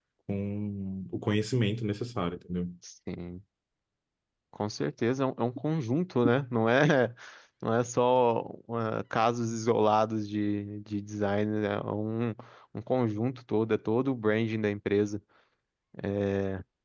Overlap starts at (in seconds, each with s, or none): none